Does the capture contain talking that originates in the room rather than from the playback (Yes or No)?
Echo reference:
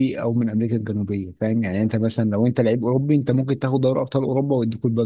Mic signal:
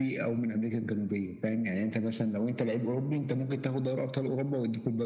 No